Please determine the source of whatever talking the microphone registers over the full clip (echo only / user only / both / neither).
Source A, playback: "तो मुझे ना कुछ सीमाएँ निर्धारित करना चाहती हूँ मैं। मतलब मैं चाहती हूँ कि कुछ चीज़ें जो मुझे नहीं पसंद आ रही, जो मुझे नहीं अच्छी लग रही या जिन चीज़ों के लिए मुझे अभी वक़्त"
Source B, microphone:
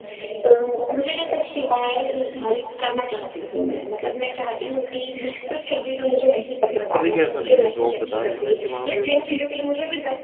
both